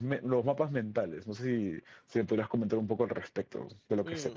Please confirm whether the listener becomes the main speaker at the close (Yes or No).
Yes